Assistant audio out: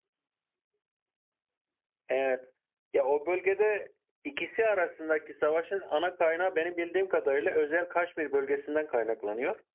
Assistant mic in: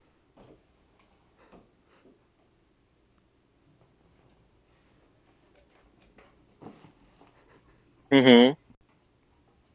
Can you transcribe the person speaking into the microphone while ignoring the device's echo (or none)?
Hı hı.